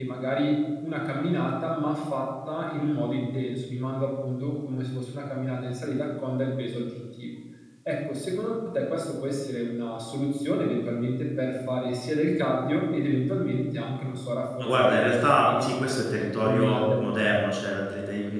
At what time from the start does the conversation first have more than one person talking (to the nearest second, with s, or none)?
15 s